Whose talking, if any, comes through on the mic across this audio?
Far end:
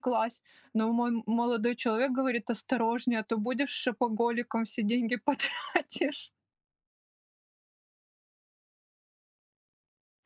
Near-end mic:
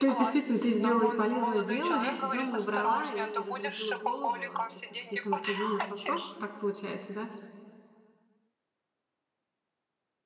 both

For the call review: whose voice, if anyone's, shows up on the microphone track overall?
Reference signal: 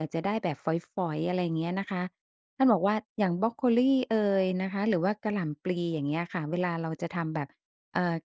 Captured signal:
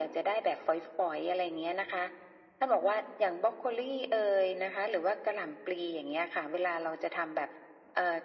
echo only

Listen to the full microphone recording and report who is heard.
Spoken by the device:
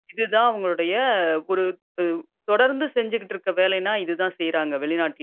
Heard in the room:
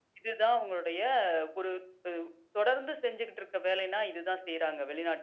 echo only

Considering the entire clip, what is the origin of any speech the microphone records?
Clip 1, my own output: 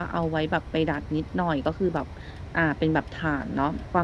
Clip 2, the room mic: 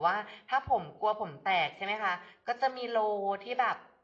user only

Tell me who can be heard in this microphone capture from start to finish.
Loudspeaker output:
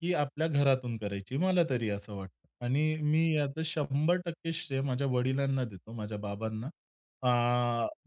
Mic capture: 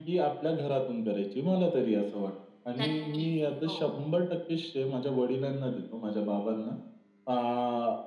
both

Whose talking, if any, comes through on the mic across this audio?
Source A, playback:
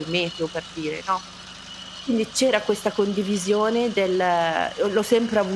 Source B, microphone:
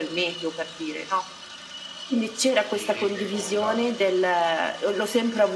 both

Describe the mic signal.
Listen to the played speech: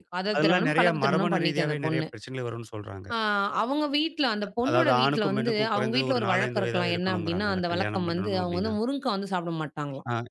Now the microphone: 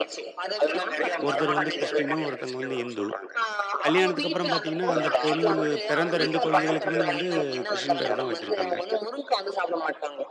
both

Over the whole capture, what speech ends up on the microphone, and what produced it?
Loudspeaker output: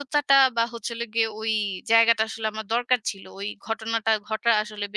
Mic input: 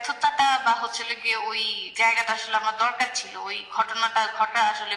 echo only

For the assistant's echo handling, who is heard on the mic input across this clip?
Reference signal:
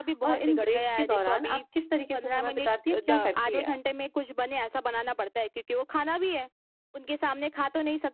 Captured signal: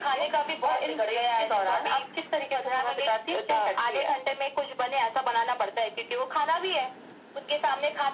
echo only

